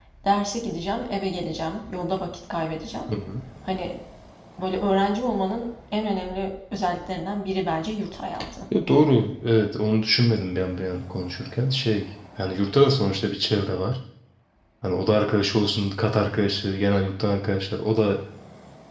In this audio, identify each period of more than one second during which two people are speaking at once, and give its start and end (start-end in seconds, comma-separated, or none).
none